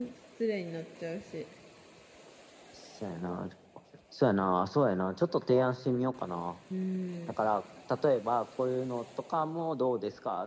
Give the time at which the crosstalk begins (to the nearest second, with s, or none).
none